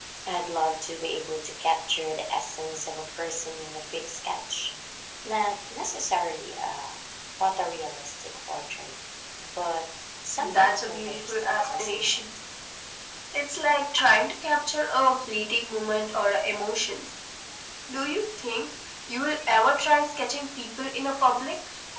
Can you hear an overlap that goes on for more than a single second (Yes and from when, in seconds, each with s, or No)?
Yes, from 10.4 s